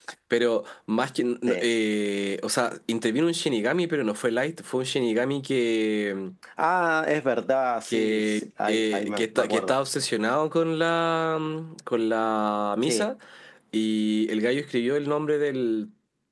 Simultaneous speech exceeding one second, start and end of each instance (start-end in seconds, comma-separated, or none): 7.9-9.8